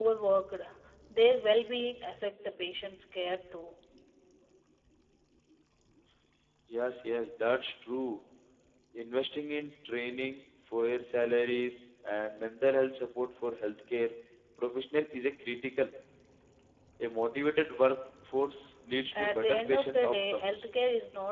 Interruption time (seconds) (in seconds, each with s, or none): 19.1 s